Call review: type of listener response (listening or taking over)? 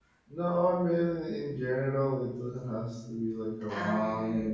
listening